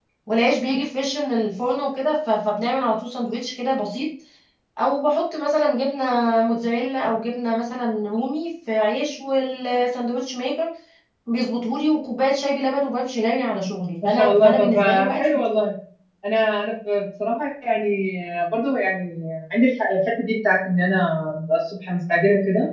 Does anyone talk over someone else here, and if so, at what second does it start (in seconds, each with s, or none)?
14.0 s